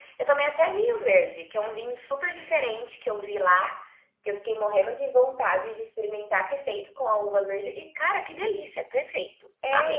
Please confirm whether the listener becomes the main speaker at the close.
Yes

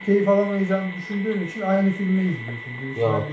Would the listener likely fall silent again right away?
Yes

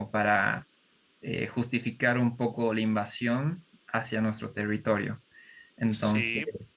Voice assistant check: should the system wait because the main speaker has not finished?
No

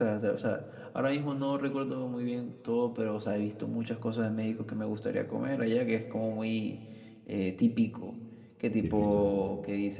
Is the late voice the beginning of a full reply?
No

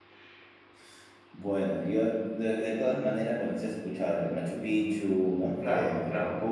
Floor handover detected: No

